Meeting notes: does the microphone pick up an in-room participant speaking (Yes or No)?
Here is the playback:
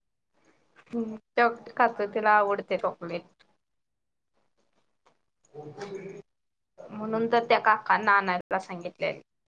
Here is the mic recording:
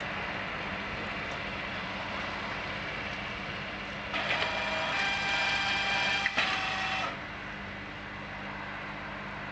No